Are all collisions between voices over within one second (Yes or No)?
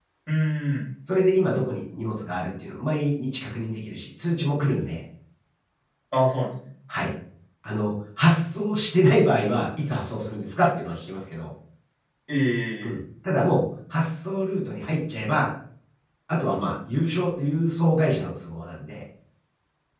Yes